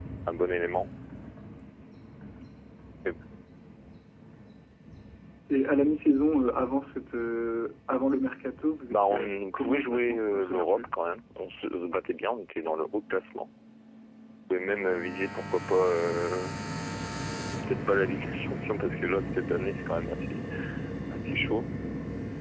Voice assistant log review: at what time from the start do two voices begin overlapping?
9 s

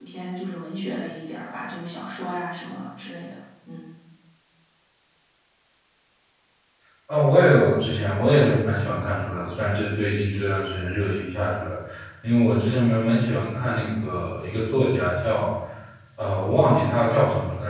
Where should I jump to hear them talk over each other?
none

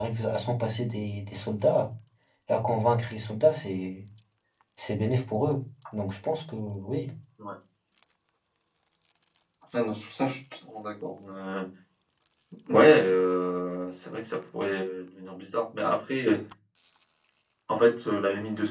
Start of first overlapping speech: none

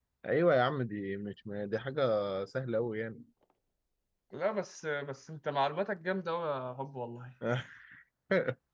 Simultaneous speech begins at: none

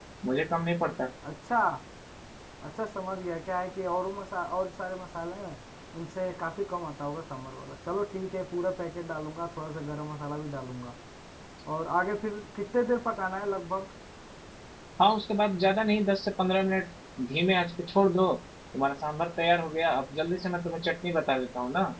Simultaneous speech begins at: none

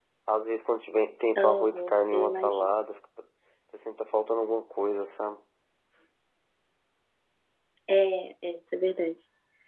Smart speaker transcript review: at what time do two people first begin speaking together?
1 s

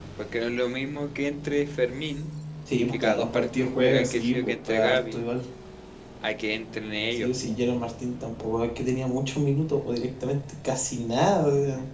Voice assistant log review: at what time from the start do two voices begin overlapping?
3 s

